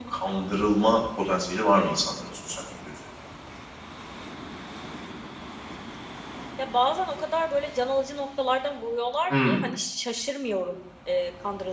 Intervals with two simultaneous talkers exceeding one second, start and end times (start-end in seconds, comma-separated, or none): none